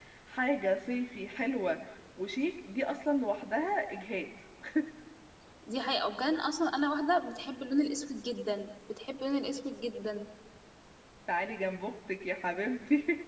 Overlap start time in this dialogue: none

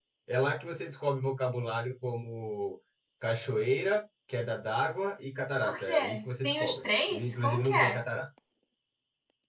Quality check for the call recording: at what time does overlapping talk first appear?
5.6 s

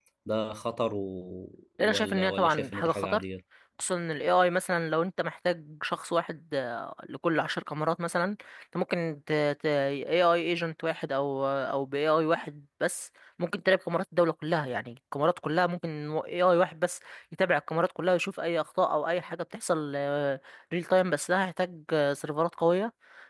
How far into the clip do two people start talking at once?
1.8 s

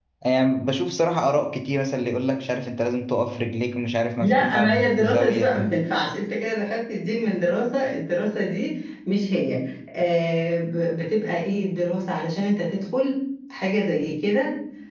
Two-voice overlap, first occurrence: 4.2 s

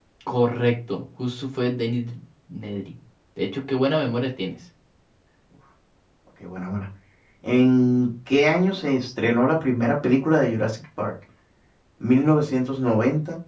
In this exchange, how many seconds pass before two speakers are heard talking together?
none

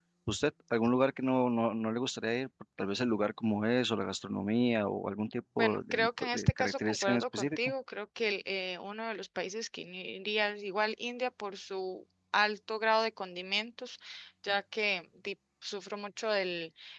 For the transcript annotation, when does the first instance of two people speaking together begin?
5.6 s

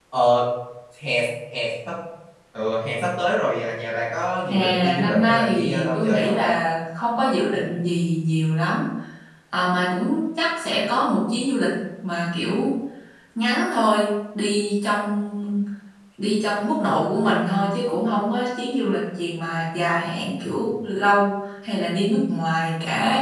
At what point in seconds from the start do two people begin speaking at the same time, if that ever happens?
4.5 s

